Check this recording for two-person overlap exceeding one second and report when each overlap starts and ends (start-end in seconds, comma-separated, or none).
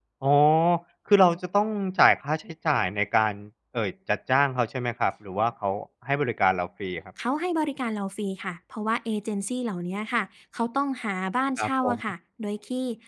none